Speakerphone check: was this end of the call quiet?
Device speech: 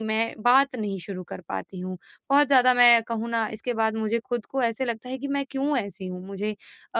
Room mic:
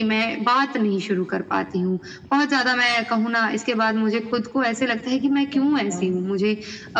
No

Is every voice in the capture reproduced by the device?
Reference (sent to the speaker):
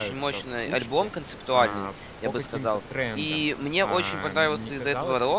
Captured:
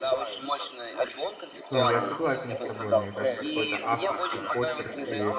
No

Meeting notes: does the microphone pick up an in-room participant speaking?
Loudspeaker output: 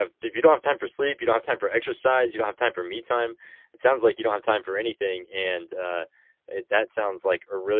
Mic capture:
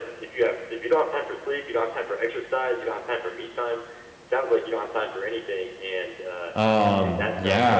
Yes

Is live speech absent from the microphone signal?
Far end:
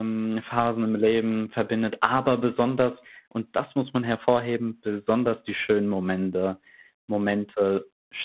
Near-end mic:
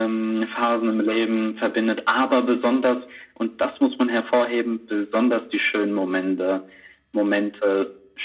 Yes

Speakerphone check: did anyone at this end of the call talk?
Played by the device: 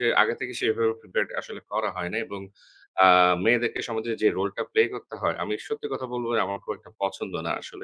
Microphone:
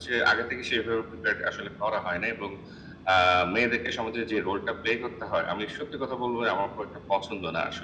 No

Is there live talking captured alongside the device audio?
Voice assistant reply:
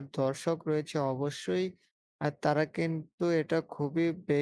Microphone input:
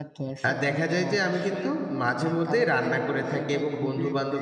Yes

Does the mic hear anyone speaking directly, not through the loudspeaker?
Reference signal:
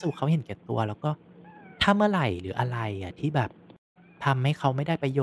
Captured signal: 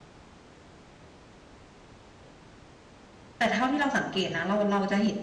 Yes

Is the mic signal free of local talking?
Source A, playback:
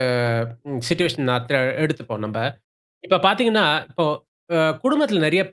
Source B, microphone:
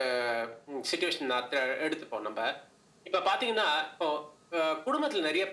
Yes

